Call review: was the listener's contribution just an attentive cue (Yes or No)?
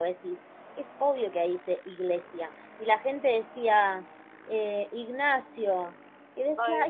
Yes